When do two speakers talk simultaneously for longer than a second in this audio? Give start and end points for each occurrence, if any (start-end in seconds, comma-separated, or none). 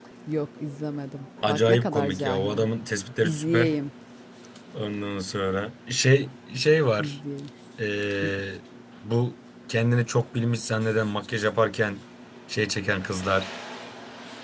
1.5-2.7